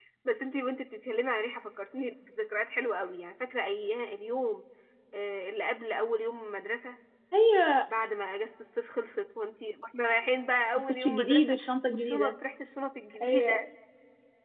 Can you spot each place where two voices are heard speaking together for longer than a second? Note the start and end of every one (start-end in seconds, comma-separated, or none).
10.9-12.3